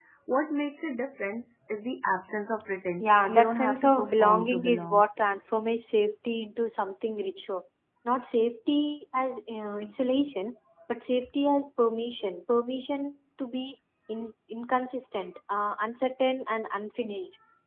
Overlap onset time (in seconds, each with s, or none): 3.0 s